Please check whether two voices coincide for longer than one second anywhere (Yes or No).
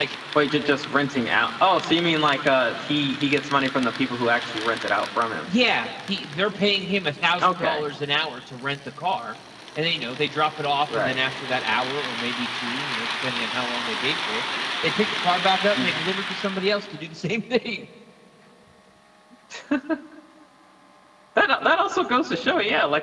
No